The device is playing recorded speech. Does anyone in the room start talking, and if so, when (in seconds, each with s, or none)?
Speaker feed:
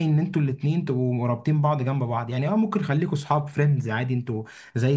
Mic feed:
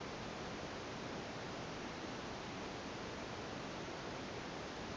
none